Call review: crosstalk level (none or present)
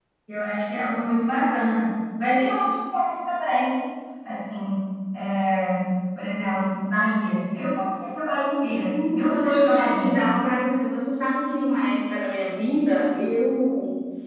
present